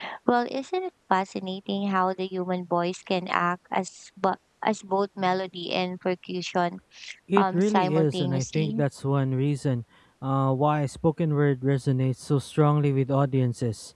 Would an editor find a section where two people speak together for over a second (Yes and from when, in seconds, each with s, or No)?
Yes, from 7.3 s